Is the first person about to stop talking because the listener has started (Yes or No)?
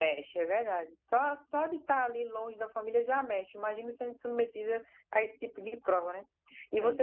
No